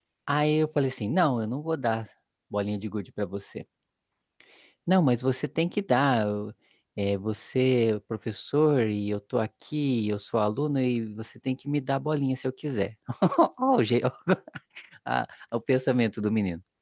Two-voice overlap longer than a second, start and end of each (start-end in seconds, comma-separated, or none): none